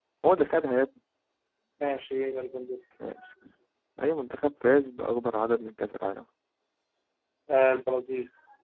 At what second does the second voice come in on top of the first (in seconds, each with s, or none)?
none